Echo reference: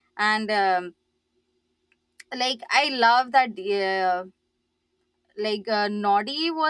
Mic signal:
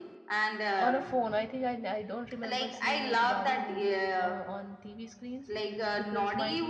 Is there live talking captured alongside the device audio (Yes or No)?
Yes